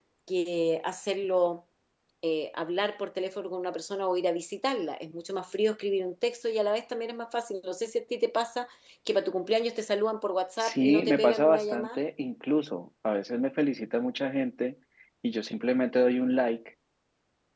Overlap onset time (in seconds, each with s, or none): 10.6 s